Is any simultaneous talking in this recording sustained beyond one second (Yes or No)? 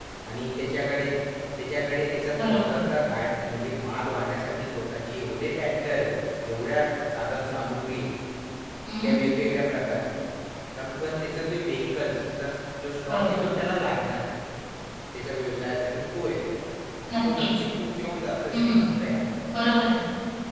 No